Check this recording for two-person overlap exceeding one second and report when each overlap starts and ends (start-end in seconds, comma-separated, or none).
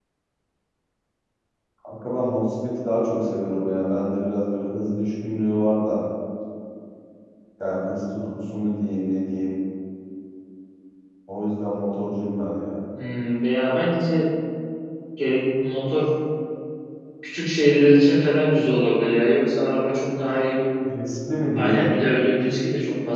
none